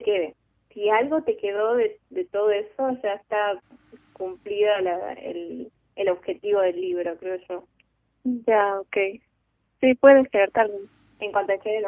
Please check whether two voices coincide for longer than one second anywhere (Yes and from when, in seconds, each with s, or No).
No